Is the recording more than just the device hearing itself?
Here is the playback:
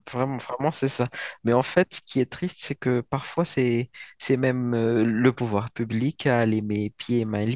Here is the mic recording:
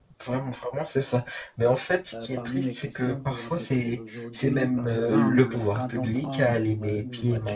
Yes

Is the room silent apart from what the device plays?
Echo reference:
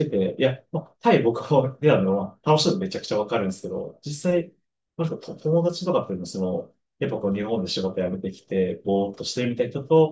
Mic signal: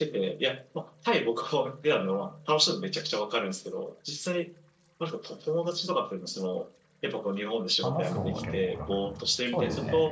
No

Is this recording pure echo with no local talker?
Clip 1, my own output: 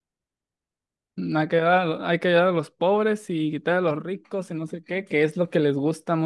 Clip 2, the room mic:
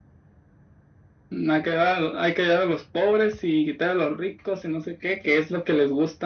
Yes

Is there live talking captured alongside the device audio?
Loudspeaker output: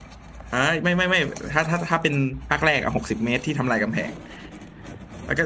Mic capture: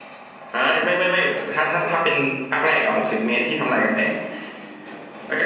No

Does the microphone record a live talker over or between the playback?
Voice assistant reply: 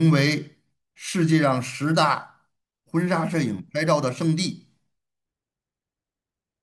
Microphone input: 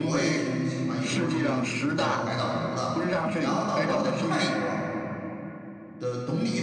Yes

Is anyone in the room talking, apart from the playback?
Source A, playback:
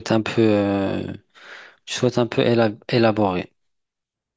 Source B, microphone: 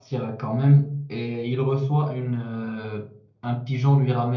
Yes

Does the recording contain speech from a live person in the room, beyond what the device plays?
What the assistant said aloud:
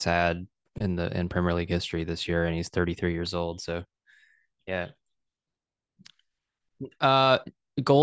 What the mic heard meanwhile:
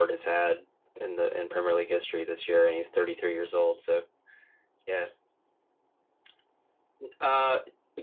No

